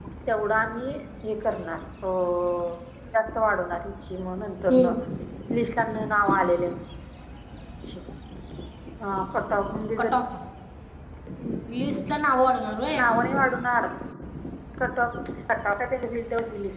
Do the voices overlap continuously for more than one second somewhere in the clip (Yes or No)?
No